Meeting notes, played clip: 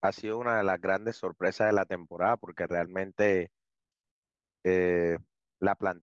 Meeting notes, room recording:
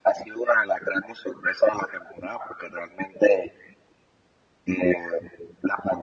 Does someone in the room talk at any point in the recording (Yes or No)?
No